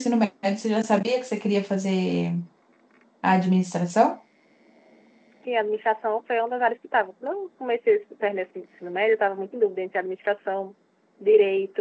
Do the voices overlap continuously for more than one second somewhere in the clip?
No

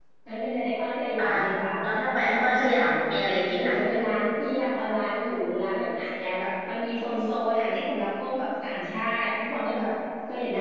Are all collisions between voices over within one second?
Yes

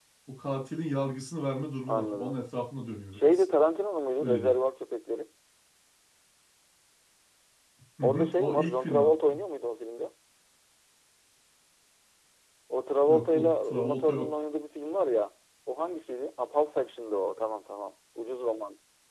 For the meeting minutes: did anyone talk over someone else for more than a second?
Yes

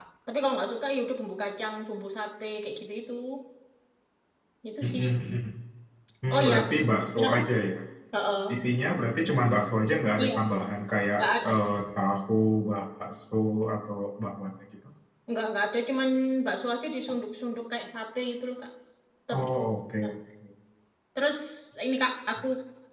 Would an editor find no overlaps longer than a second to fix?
Yes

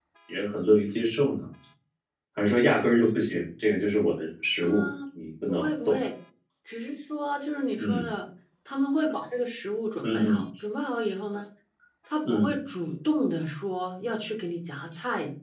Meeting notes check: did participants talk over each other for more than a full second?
No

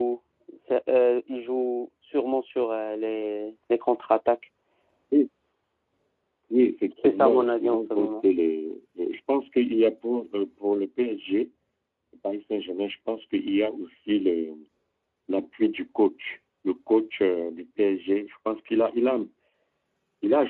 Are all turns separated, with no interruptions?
No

